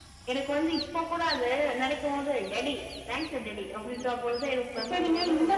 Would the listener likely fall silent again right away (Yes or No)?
No